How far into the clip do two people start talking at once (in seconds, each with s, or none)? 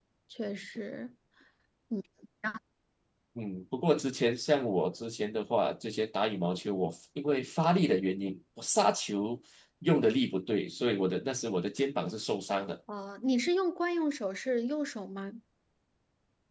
none